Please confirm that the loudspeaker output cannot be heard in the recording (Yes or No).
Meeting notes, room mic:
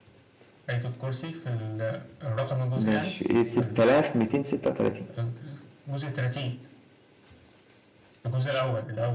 No